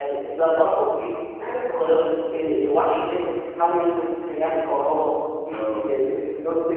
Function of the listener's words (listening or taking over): listening